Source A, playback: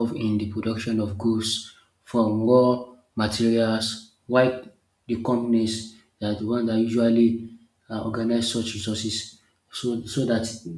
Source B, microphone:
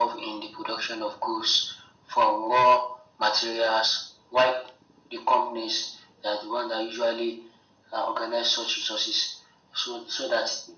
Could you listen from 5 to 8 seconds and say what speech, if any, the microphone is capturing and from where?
echo only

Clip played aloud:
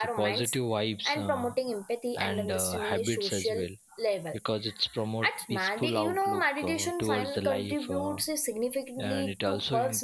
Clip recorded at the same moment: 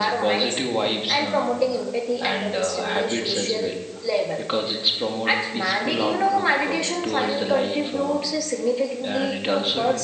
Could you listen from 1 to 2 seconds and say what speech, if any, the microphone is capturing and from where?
echo only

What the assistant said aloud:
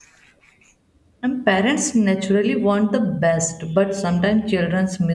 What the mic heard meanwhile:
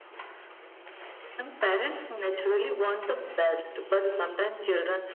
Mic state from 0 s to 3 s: echo only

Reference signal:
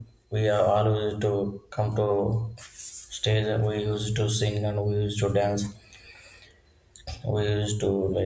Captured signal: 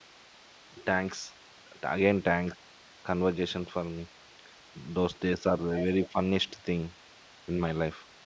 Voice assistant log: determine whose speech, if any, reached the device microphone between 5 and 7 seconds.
user only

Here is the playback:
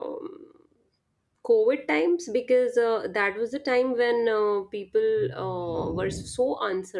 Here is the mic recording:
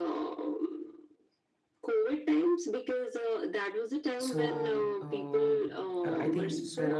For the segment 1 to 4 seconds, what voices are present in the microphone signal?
echo only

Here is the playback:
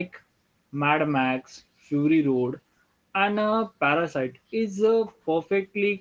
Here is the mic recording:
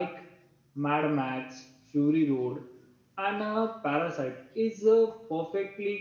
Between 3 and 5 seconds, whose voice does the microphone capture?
echo only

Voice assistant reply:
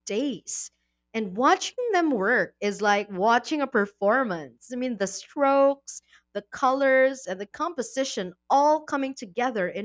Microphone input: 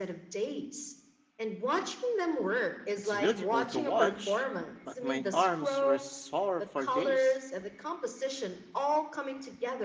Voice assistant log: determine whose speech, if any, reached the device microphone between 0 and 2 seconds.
echo only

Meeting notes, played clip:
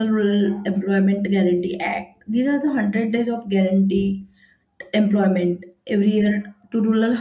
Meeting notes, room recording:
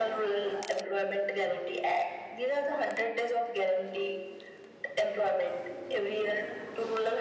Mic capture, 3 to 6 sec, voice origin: echo only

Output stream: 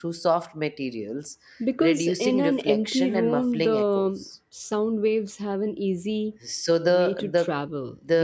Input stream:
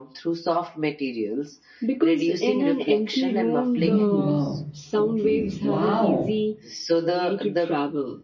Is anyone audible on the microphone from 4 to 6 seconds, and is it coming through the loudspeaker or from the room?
both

